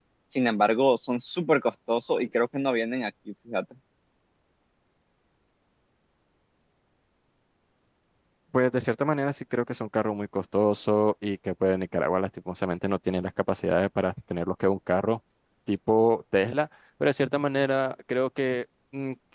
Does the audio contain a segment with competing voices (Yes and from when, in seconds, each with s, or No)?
No